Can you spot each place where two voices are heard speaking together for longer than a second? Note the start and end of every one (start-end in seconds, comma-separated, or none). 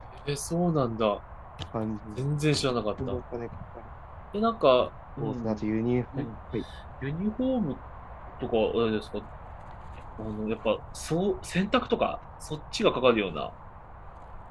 none